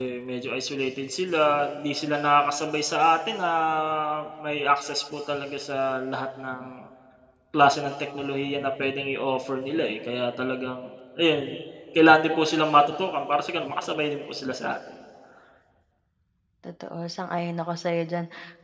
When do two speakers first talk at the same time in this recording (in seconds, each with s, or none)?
none